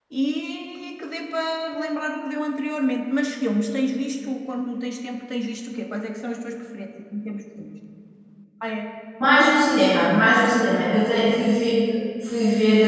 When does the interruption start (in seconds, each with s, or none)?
none